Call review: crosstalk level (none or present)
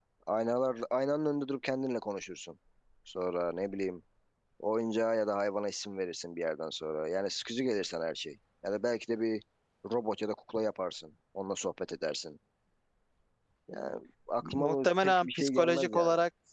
present